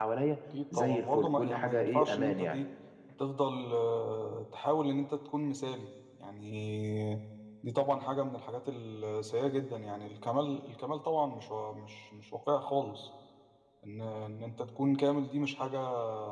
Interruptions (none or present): present